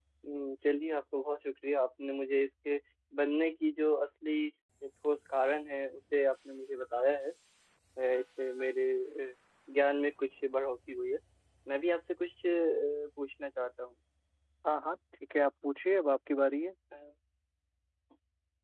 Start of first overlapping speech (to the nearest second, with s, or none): none